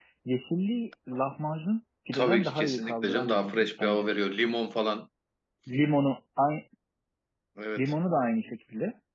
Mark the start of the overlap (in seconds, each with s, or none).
2.1 s